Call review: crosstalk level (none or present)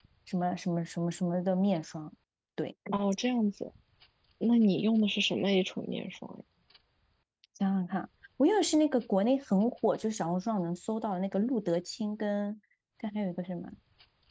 none